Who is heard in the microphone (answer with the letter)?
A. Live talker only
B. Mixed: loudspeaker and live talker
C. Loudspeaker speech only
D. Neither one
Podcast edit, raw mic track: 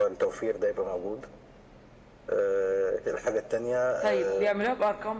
B